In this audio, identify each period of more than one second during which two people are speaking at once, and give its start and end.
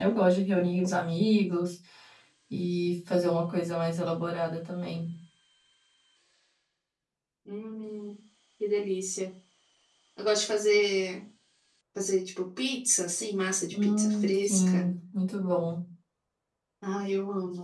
13.7-15.0

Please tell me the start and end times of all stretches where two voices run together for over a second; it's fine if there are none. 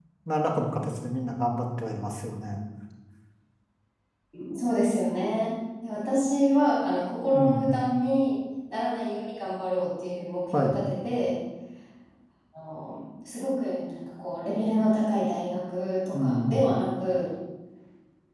none

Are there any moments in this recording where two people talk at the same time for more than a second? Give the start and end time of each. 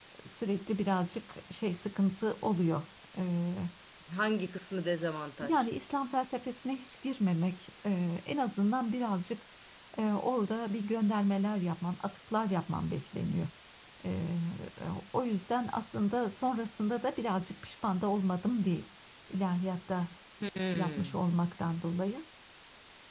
none

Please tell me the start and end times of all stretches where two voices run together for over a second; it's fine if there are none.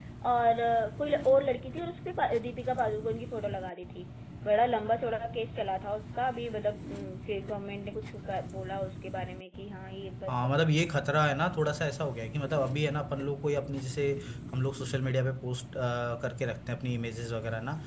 none

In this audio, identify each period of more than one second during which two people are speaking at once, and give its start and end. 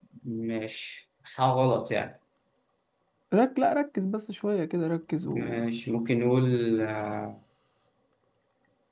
none

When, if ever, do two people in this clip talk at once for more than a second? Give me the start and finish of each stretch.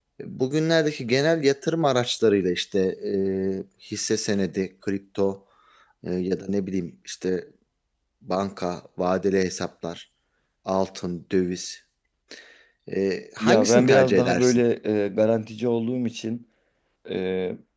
13.4-14.6

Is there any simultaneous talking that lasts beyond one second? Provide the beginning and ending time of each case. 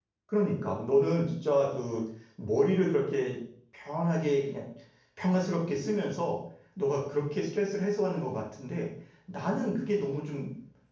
none

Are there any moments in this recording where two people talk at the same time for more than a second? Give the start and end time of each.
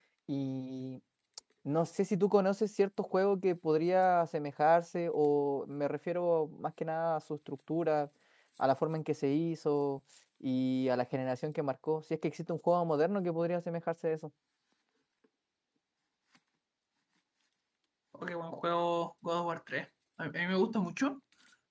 none

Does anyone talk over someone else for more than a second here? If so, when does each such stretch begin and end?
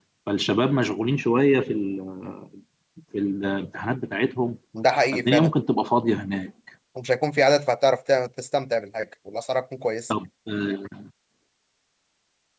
none

